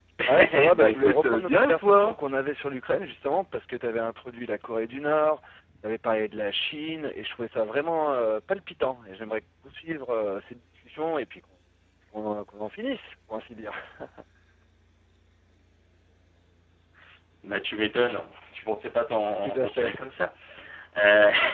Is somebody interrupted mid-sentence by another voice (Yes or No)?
Yes